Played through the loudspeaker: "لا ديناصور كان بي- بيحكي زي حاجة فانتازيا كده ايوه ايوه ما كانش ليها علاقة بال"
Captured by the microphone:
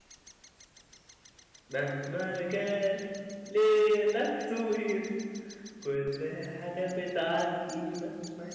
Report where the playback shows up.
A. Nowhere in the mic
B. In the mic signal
A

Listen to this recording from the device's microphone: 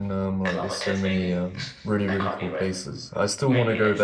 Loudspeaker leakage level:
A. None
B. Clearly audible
B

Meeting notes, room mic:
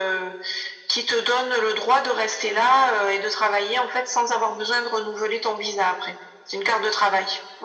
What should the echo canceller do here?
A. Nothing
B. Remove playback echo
B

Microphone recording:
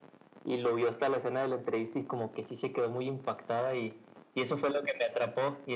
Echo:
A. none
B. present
B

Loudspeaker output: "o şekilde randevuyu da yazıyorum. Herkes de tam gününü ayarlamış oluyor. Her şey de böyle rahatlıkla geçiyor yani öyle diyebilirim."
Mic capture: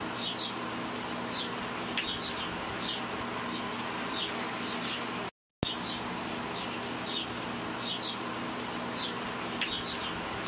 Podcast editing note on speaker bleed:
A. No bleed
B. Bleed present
A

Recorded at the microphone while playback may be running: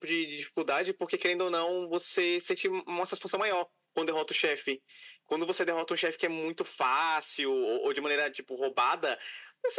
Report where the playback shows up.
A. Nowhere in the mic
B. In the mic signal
B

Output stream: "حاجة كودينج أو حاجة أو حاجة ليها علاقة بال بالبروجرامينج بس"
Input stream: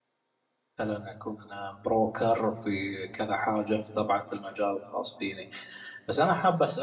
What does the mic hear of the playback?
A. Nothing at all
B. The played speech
A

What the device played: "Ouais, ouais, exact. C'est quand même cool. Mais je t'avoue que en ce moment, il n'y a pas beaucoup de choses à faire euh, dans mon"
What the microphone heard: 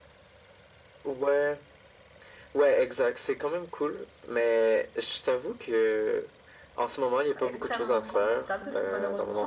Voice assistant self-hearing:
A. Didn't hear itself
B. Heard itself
B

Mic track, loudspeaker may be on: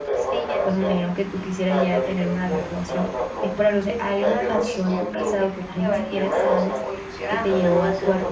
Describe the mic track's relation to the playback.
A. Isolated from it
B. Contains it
B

